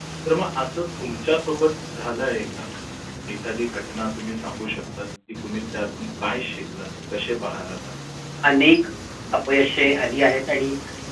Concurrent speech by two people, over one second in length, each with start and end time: none

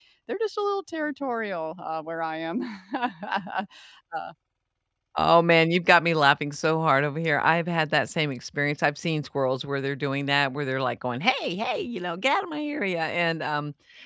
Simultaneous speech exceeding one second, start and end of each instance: none

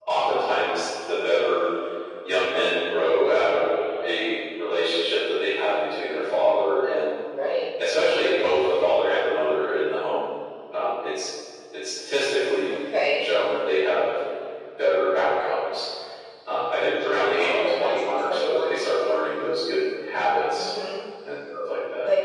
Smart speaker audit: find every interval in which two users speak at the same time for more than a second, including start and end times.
17.4-19.2

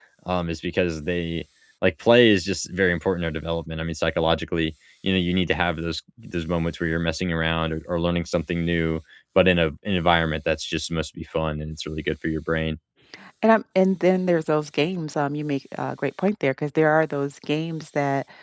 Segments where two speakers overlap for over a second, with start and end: none

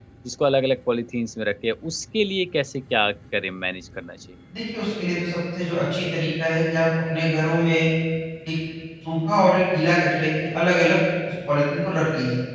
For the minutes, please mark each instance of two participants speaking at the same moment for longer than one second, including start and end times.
none

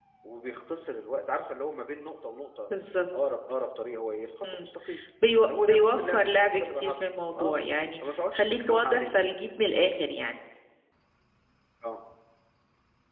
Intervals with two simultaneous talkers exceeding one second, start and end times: 5.6-7.0, 8.1-9.2

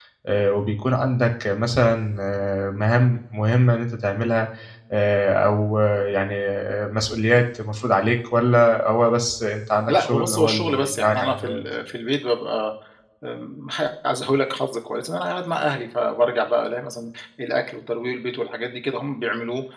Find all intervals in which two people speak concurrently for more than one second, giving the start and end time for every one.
9.9-11.6

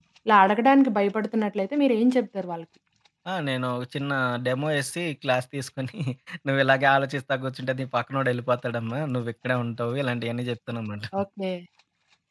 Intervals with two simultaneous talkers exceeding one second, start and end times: none

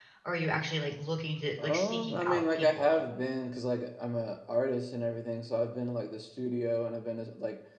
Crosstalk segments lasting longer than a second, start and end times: 1.6-3.0

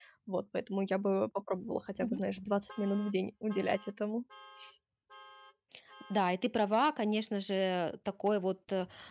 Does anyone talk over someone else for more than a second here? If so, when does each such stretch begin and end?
none

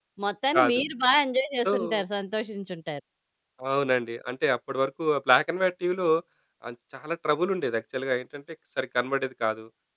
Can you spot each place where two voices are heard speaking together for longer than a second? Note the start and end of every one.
none

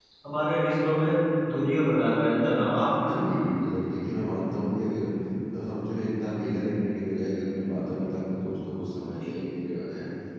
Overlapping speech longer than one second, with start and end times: none

